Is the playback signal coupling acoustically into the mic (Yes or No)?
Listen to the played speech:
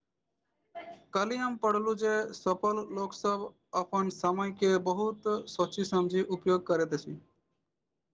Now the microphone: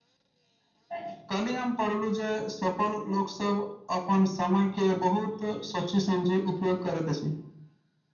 Yes